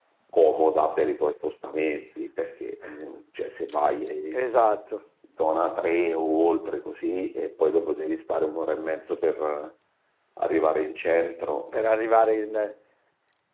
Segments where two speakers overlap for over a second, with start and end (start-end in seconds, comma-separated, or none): none